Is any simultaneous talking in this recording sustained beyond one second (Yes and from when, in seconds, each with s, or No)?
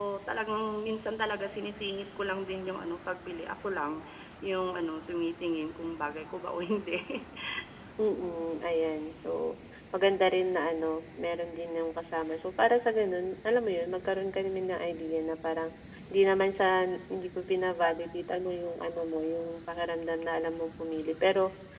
No